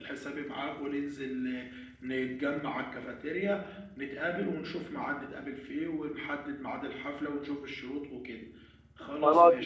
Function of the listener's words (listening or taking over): taking over